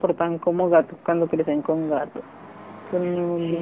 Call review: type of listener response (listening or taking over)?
taking over